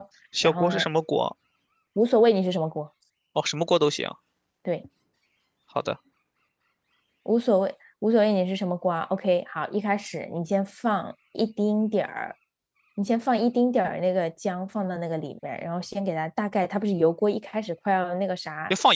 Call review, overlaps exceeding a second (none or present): none